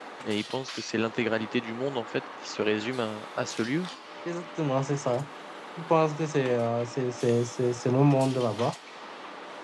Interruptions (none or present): none